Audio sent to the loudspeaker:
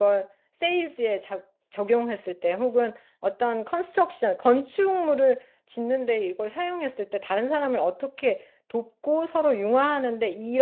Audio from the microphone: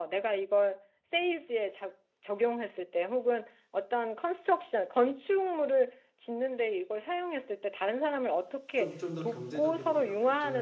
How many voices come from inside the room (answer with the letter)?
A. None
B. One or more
B